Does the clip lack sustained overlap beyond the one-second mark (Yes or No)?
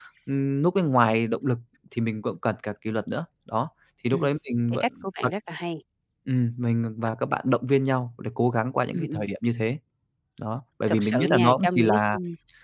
No